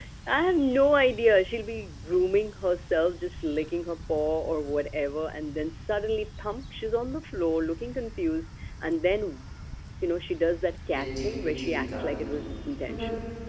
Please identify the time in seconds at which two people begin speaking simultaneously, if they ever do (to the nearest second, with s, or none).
11 s